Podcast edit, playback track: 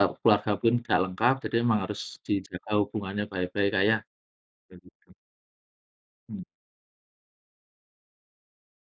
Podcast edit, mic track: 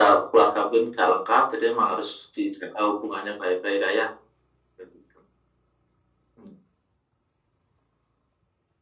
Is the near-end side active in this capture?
No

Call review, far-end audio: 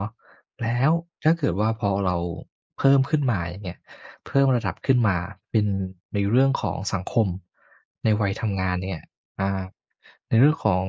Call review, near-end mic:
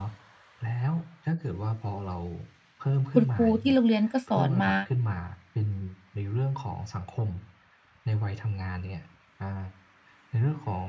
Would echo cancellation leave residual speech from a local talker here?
Yes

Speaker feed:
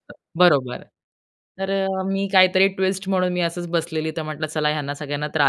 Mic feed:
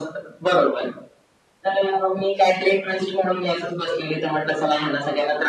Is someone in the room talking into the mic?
No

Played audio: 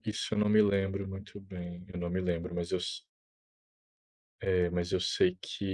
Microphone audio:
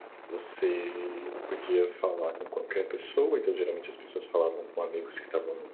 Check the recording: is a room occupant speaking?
Yes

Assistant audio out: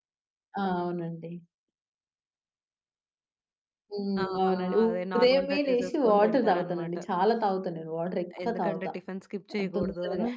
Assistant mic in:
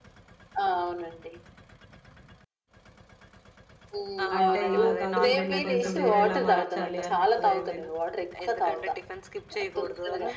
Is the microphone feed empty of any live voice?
No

